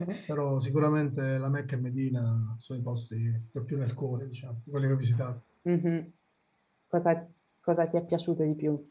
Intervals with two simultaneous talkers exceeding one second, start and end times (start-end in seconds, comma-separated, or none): none